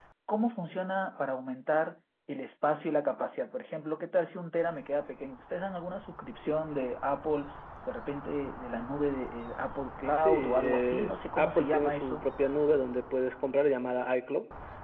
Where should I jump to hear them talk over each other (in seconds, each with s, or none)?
10.1 s